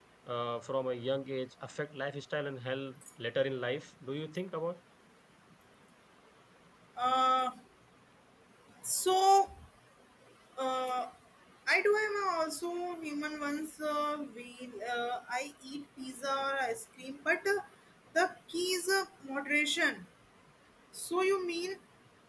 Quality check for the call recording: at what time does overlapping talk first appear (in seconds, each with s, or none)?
none